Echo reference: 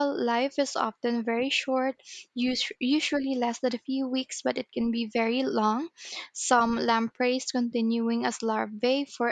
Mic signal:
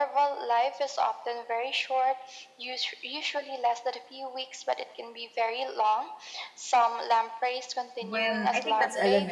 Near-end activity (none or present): present